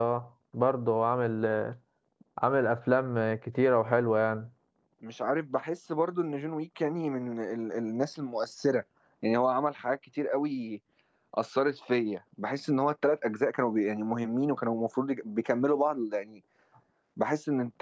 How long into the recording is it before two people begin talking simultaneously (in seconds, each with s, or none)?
none